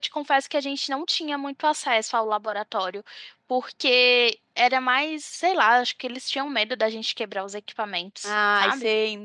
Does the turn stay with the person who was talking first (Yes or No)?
No